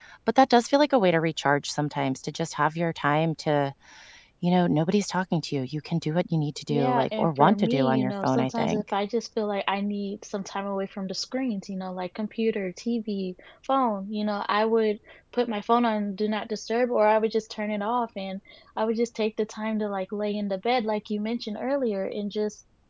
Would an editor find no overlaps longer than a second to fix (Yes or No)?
No